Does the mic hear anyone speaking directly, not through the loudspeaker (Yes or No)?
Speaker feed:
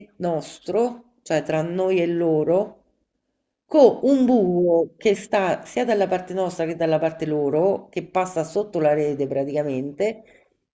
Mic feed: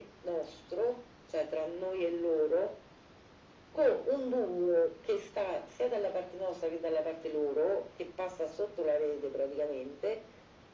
No